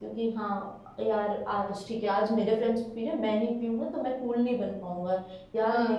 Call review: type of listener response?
listening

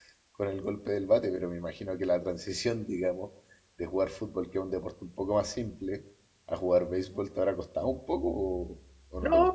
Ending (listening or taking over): taking over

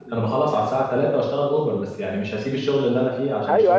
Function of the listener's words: taking over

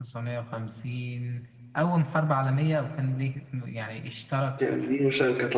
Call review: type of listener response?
taking over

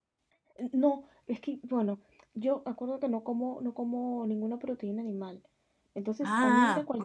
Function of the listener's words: listening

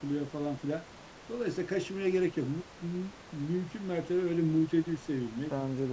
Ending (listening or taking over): listening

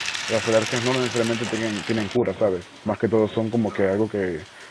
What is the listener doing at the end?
listening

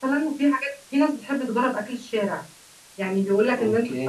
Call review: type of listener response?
listening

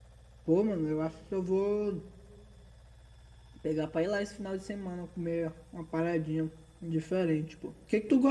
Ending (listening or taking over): listening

